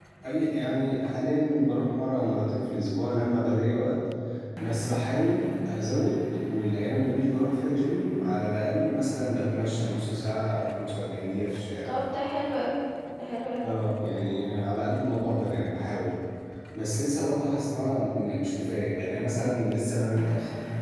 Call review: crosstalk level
none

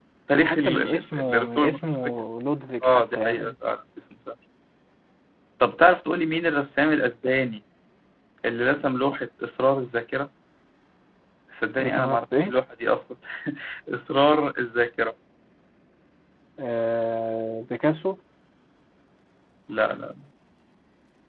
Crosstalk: present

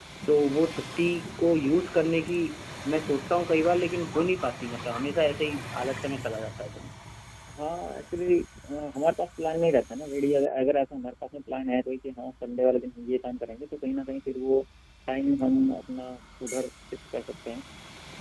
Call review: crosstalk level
none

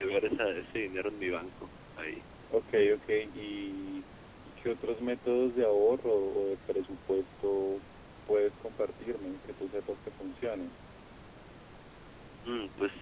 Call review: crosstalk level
none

